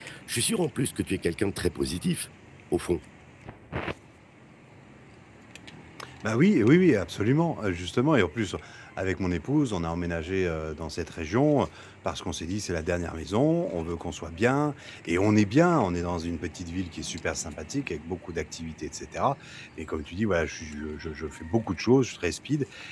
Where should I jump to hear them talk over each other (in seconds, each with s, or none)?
none